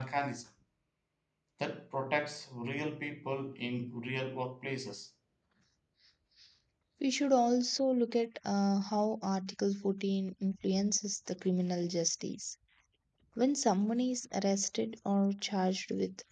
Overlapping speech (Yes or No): No